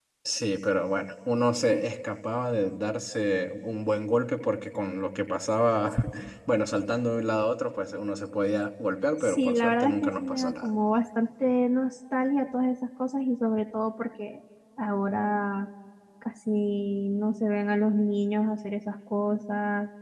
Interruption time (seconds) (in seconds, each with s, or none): 9.2 s